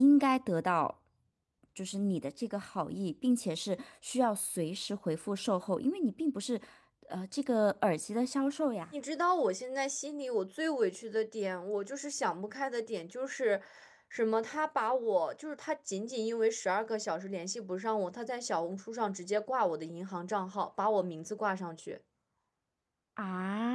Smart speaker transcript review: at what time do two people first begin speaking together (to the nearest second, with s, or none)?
none